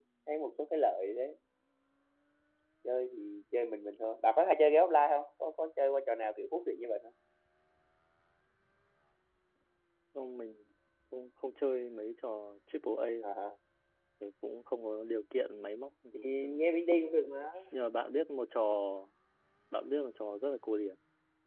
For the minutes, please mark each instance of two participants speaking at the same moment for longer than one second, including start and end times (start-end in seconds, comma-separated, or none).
none